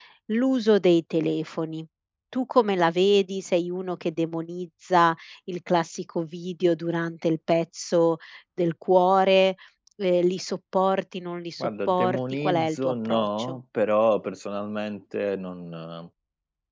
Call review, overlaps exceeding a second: present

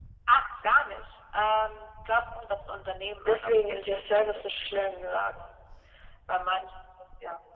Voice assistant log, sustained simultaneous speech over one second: present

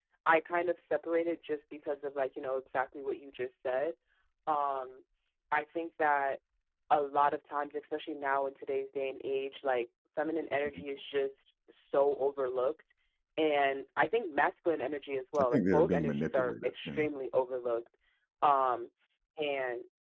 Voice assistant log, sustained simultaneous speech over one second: present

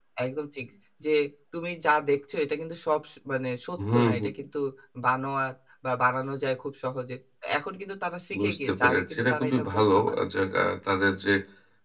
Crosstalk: present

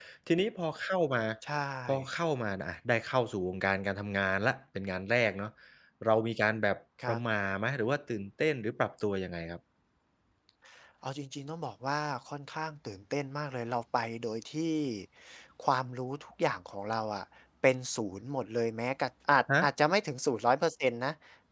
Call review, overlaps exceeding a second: none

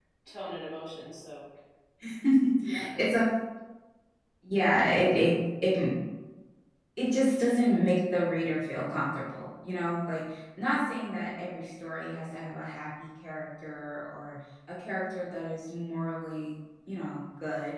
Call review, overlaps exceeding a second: none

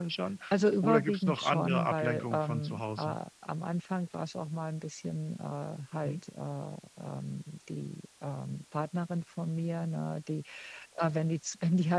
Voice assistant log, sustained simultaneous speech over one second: present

